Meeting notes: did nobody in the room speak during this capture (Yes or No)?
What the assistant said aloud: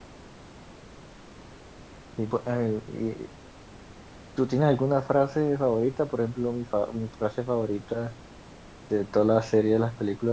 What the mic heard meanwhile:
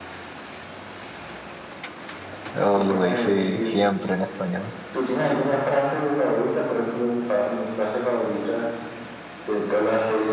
No